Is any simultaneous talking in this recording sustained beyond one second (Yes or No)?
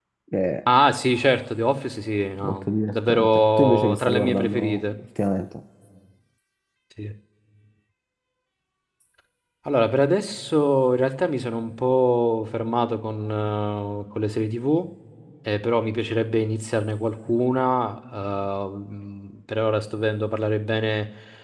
Yes